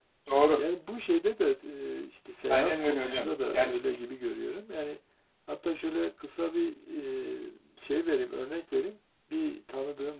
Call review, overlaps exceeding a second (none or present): present